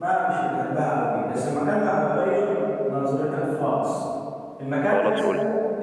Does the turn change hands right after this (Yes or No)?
No